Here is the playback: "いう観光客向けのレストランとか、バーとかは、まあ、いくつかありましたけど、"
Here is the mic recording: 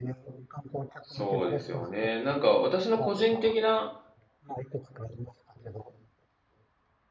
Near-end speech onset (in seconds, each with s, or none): 1.0 s